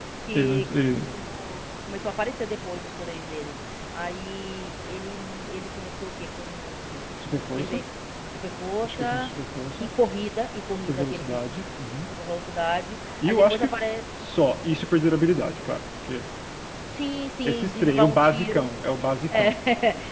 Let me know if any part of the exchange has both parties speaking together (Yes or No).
Yes